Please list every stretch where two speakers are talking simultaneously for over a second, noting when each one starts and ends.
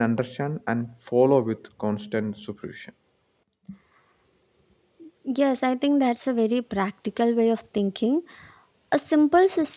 none

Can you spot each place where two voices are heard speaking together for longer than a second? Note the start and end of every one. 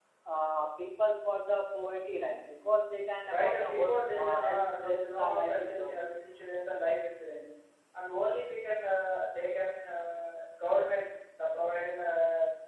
3.4-6.0

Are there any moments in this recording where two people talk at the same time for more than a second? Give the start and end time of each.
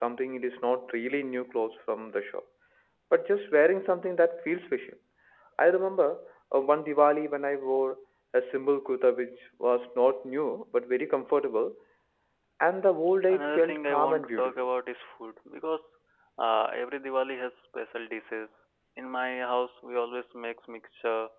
13.3-14.7

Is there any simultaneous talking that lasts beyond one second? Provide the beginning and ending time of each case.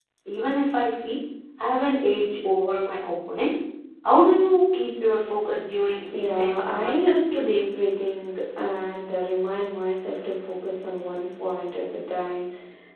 6.1-7.3

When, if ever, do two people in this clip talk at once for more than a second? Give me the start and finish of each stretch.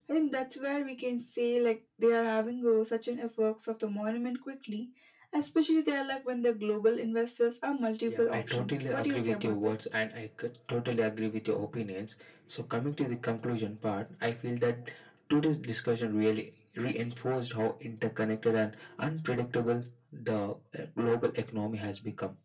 8.1-9.7

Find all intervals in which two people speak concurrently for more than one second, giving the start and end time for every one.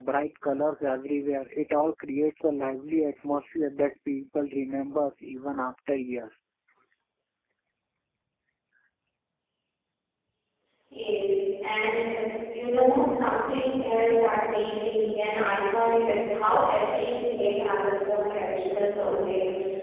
none

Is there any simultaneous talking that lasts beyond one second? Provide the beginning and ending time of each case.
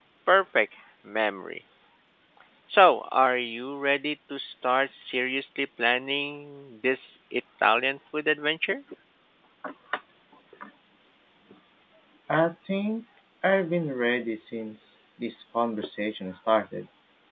none

